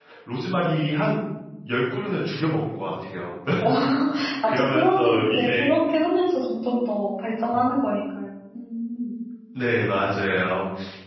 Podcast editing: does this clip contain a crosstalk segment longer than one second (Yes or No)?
Yes